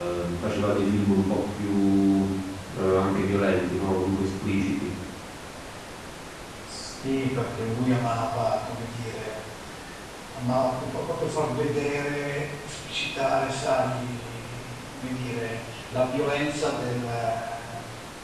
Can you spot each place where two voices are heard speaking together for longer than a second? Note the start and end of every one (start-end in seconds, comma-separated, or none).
none